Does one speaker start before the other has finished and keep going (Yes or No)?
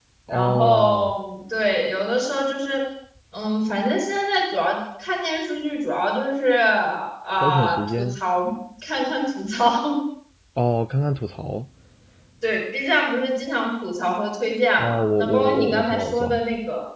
Yes